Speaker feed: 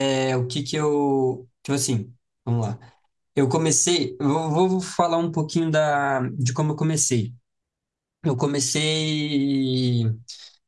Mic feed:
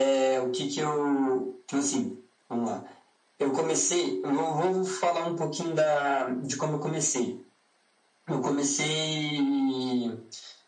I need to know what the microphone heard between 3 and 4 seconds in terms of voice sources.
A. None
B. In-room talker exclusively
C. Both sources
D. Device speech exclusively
D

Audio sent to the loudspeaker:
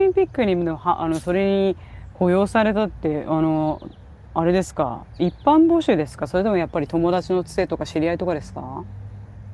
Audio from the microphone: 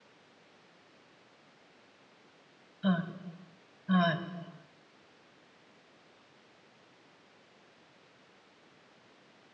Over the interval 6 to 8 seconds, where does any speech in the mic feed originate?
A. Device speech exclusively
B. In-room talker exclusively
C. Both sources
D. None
D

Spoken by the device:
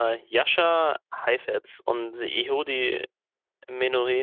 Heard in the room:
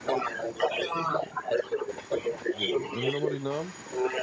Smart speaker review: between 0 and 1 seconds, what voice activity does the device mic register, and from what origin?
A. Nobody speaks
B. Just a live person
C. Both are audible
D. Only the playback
D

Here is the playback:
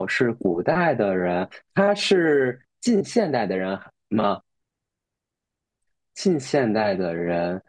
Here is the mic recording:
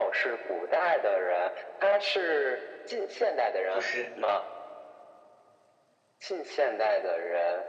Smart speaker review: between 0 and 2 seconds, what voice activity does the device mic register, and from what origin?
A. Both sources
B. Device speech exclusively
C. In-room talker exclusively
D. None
B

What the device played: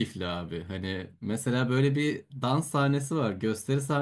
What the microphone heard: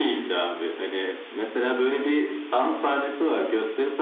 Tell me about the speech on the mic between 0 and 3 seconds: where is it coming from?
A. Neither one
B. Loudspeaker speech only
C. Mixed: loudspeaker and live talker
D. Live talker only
B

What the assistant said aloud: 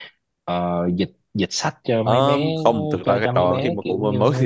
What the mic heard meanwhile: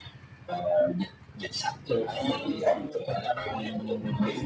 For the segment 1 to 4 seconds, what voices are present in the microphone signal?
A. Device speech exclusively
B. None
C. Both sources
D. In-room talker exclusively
C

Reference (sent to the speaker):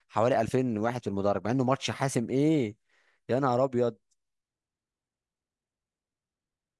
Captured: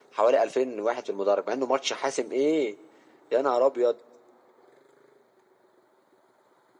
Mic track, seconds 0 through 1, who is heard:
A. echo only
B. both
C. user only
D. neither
A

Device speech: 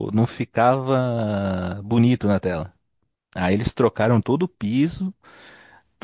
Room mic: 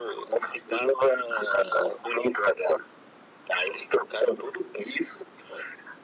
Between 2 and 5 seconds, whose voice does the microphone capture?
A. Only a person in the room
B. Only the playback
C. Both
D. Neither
B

